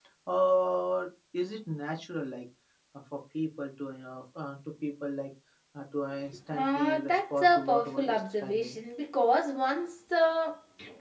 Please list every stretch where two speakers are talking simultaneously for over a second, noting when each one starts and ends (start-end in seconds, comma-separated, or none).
6.5-8.8